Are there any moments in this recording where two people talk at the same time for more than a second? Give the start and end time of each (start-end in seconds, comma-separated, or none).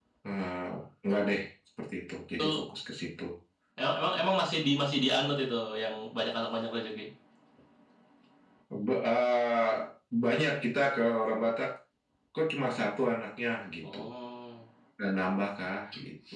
none